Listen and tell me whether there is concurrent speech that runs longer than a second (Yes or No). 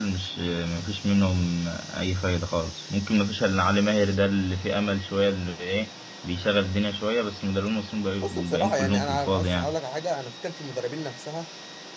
Yes